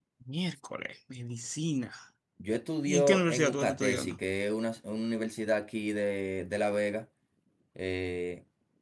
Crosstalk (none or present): present